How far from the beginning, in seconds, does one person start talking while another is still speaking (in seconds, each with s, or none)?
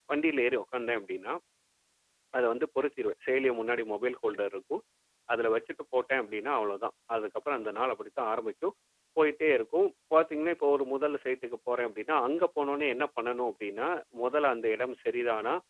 none